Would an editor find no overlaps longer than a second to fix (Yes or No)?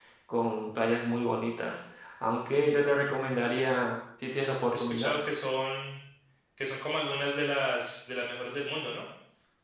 Yes